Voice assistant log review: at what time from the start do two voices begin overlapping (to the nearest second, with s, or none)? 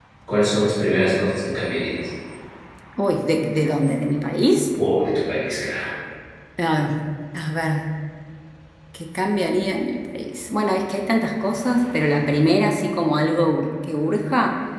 none